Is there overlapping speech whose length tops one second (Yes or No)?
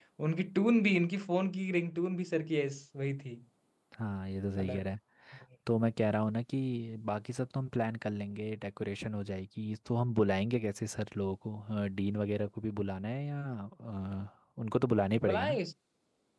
No